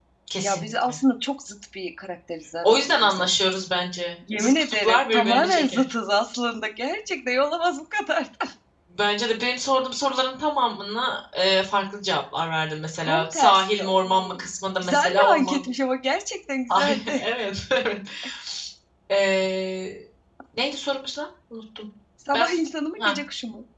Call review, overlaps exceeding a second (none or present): present